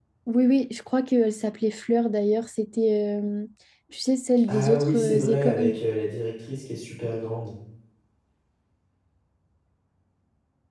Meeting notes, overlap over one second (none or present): present